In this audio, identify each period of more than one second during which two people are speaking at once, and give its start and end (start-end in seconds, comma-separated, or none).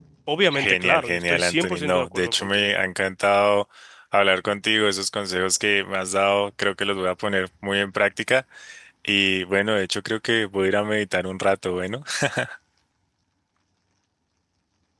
0.5-2.6